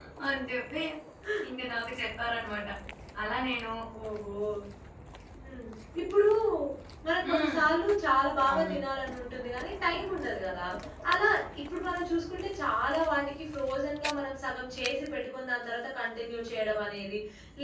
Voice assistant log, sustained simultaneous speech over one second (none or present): none